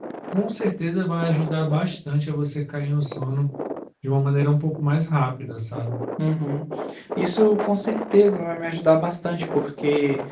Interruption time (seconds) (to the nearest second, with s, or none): none